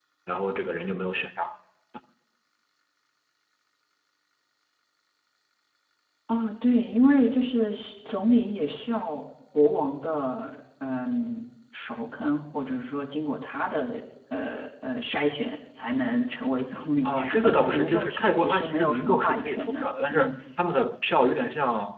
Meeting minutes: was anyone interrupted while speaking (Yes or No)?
Yes